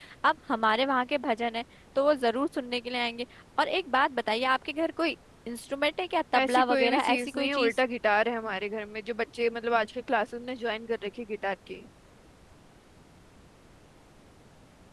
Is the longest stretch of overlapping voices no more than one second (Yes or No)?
No